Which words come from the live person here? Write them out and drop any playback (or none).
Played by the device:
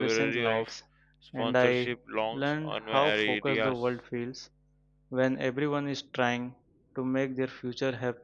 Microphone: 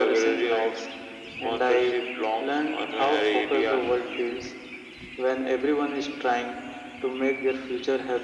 none